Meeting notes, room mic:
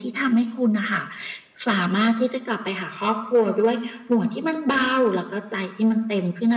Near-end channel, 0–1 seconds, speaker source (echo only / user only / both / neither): echo only